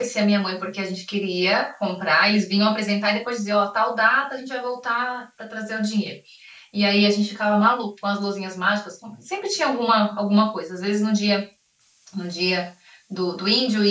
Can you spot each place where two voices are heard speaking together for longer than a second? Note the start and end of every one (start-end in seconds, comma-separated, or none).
none